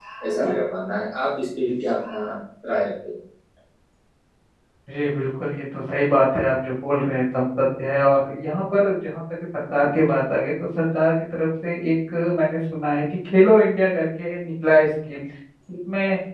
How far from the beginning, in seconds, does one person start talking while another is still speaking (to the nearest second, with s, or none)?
none